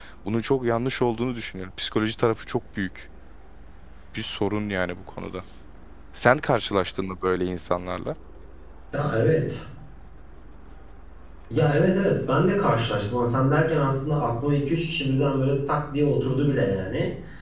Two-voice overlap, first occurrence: none

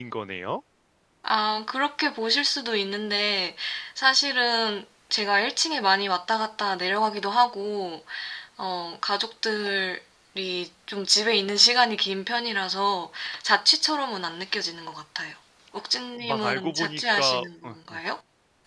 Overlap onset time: 16 s

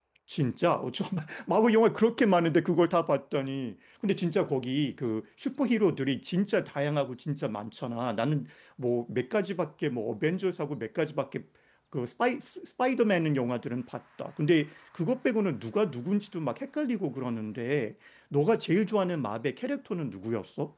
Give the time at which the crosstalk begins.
none

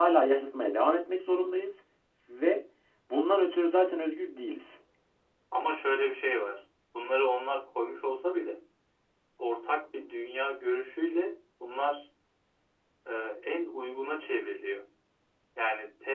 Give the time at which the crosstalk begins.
none

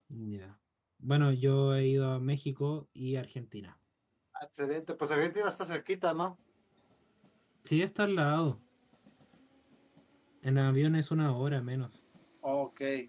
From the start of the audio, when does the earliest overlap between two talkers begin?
none

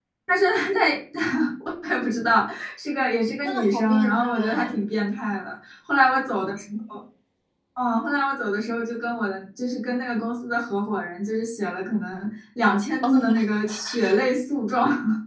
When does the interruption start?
3 s

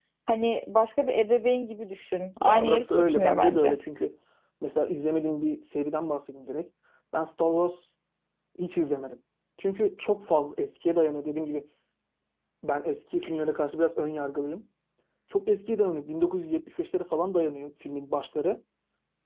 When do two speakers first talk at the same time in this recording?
2 s

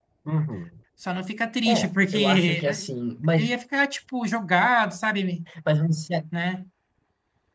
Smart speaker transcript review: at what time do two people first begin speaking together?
2 s

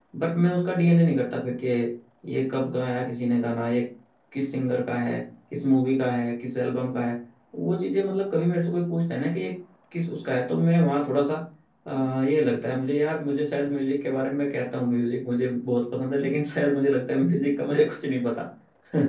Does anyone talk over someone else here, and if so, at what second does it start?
none

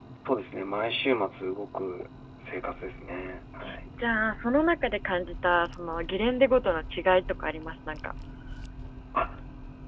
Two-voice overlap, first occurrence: none

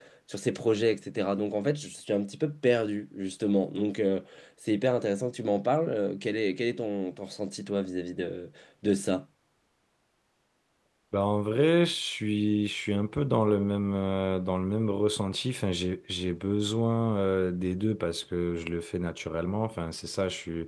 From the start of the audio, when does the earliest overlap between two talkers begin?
none

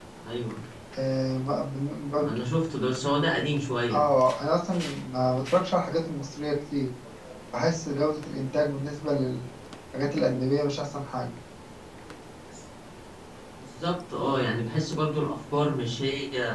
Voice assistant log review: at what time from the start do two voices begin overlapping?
none

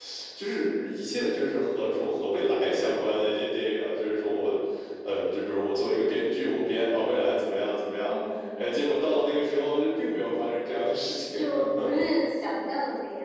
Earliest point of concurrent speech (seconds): none

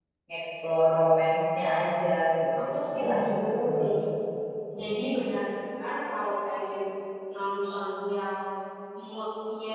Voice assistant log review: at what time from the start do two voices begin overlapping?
3 s

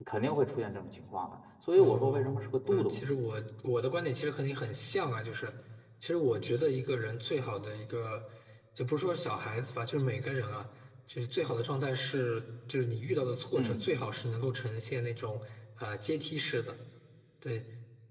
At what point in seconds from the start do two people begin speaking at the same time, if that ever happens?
2 s

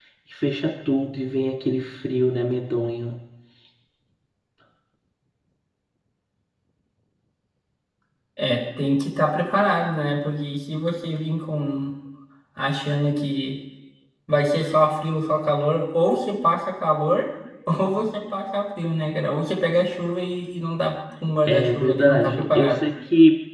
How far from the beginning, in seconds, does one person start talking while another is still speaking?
21 s

